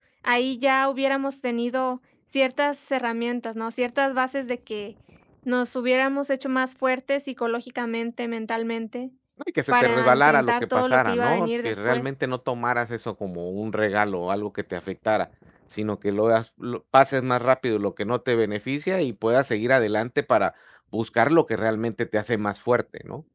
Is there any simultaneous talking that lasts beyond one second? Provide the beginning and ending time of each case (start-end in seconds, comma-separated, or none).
9.7-12.0